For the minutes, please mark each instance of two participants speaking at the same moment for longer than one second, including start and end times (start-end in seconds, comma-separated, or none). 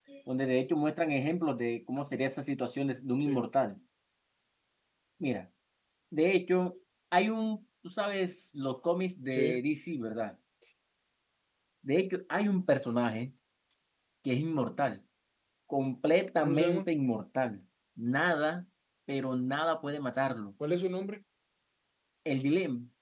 none